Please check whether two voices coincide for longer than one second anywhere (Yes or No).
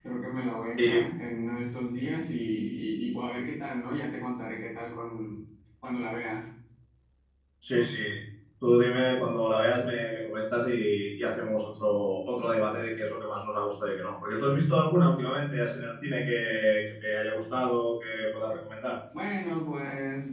No